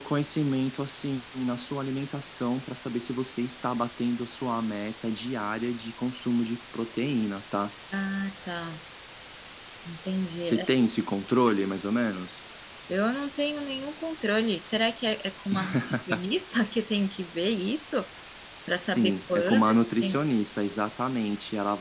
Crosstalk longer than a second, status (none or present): present